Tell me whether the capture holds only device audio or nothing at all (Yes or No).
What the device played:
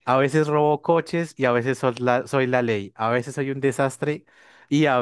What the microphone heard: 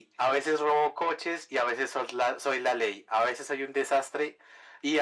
Yes